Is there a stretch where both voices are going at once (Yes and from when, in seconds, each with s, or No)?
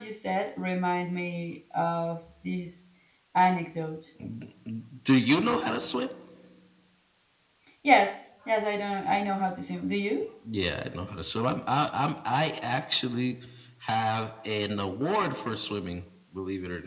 No